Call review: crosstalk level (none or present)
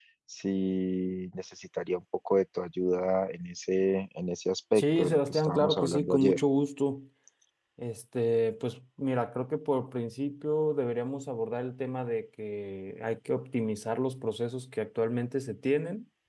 present